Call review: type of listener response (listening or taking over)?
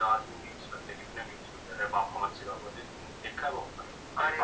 taking over